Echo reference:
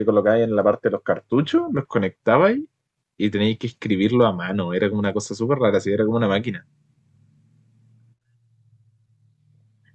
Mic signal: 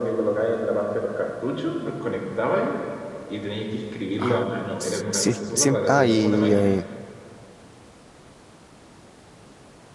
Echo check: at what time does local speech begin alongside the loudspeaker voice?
4 s

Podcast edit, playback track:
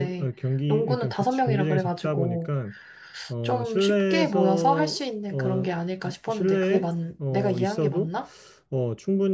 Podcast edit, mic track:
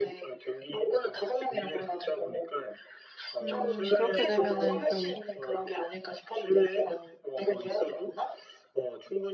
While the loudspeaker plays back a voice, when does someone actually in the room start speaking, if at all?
3 s

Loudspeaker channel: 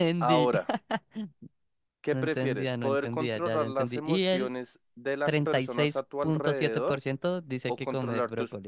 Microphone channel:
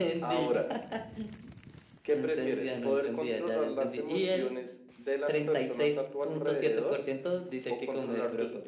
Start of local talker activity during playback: none

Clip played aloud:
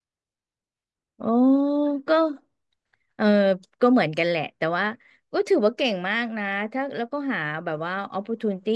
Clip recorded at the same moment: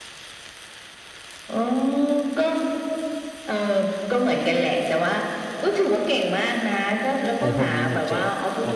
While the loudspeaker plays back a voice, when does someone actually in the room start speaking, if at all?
7 s

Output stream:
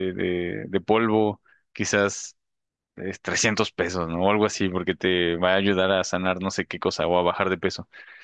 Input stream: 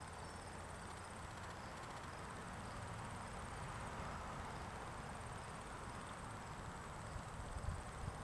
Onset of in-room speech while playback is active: none

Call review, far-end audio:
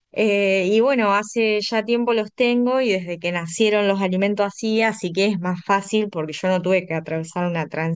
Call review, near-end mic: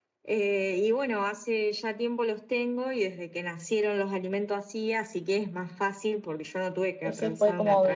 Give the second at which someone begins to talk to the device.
7 s

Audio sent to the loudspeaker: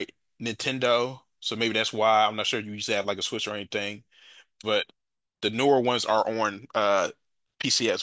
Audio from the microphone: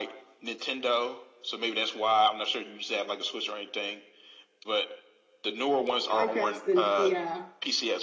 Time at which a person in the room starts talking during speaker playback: 6 s

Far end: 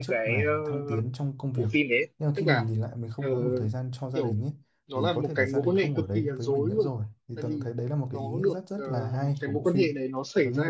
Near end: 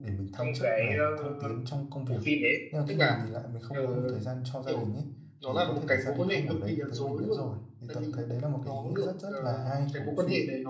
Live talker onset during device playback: none

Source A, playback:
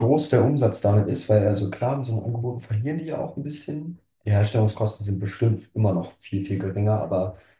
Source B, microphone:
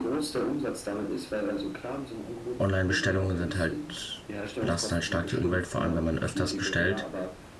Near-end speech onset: 3 s

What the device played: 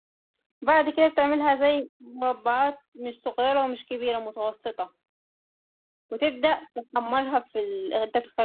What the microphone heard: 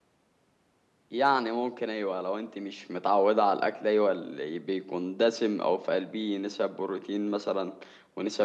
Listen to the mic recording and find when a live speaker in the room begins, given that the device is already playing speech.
1 s

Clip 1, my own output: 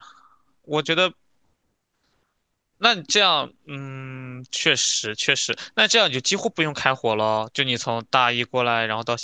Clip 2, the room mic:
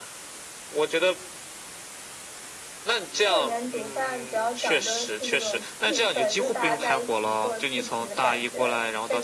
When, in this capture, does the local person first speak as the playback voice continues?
3 s

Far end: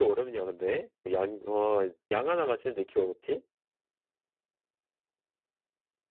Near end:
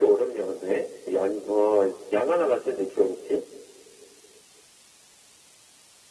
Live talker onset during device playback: none

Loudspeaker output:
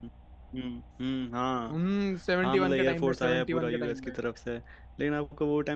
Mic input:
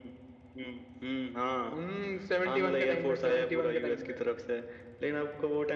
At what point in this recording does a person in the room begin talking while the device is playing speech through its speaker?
none

